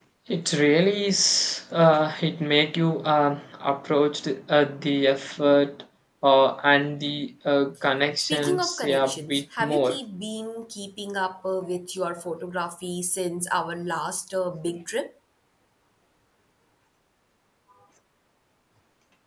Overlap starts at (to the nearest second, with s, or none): 8 s